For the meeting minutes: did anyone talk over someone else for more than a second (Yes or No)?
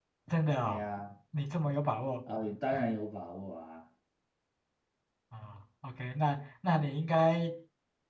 No